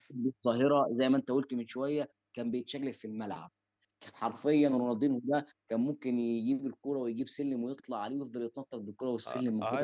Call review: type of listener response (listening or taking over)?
taking over